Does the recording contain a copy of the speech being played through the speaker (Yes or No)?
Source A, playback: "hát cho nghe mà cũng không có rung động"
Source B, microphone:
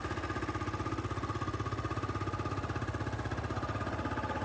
No